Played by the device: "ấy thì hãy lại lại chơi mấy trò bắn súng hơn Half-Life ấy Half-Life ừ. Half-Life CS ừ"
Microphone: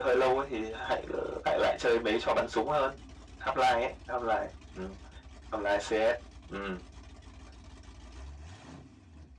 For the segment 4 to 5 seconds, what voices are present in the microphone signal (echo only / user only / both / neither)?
echo only